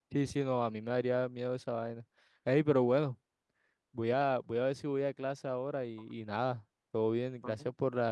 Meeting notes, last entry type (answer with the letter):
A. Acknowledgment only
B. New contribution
A